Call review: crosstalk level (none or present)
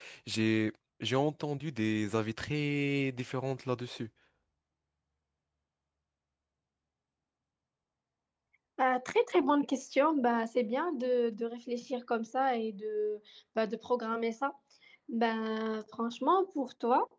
none